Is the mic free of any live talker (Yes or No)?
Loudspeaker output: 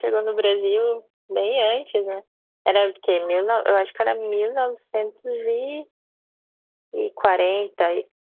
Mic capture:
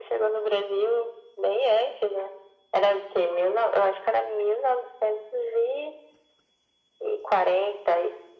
Yes